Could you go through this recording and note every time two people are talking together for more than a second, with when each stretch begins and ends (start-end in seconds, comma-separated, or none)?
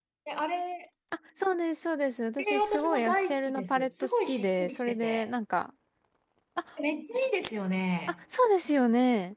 2.4-5.3